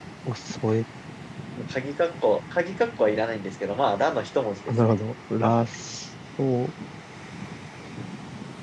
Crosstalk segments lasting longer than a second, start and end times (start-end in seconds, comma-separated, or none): none